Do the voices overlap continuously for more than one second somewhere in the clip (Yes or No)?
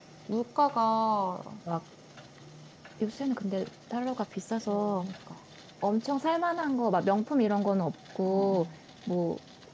No